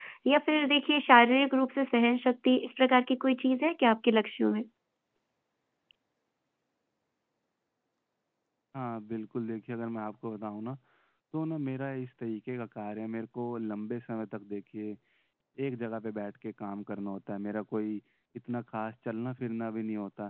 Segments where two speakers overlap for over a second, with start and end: none

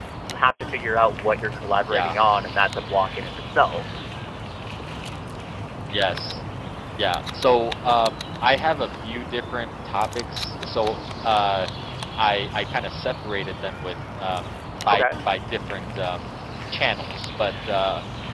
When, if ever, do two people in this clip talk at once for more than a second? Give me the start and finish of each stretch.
none

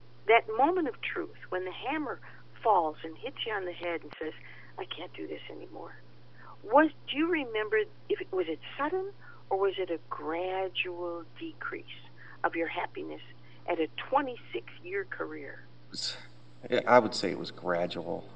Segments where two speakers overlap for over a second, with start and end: none

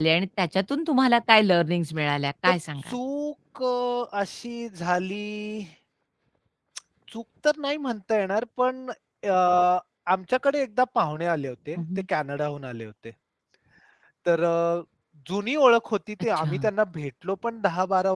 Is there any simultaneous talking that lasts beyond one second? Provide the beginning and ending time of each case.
none

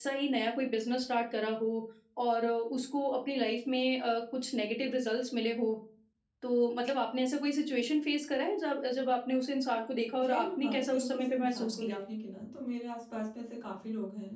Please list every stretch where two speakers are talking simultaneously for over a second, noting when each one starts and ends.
10.2-12.0

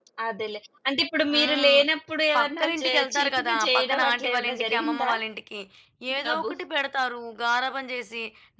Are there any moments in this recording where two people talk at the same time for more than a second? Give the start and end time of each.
2.3-5.1

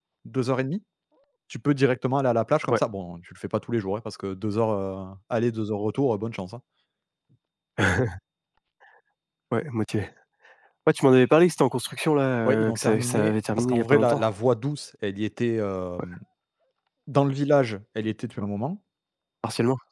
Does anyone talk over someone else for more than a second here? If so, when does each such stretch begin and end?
12.4-14.2

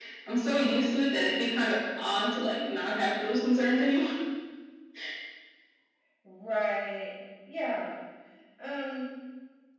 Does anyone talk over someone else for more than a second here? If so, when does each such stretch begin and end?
none

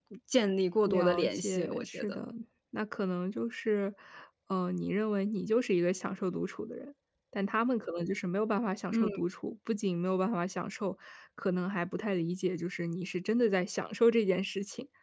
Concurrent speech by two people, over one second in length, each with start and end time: 0.8-2.3

